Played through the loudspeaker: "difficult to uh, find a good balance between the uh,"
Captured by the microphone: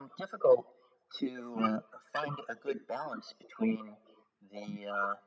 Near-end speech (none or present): none